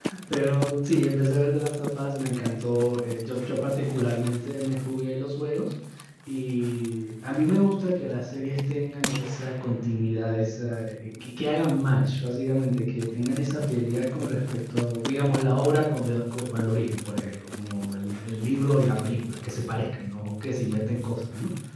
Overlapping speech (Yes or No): No